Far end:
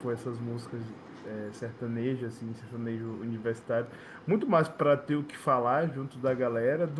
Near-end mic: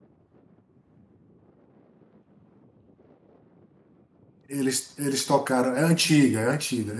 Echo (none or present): none